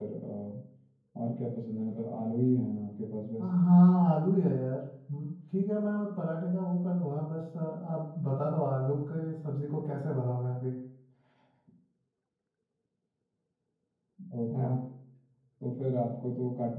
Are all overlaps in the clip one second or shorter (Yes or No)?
Yes